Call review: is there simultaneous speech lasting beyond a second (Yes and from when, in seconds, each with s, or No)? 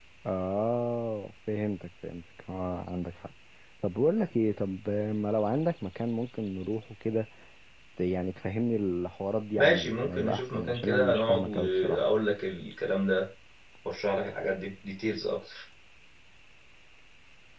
Yes, from 9.6 s